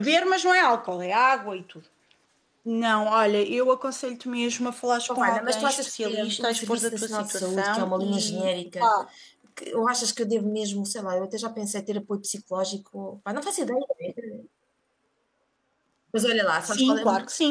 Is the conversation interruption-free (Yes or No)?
No